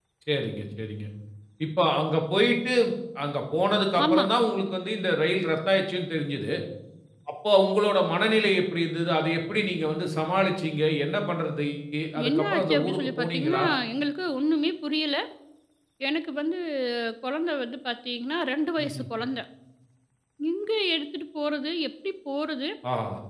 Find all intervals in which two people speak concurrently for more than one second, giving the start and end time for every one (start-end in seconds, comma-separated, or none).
12.3-13.6